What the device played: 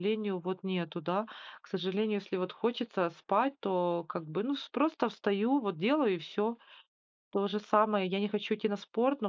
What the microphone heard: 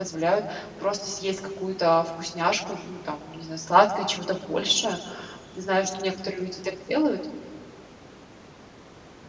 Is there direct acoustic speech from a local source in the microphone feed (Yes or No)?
Yes